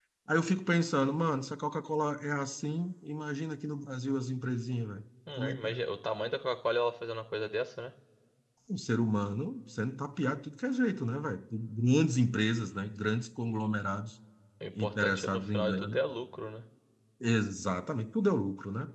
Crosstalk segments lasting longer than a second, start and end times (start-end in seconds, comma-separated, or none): 14.8-16.0